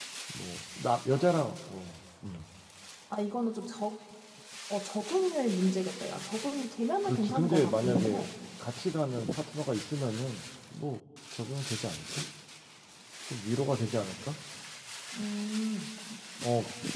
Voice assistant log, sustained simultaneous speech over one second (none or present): present